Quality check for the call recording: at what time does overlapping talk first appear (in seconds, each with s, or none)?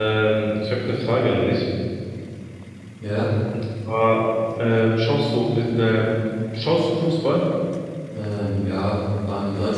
none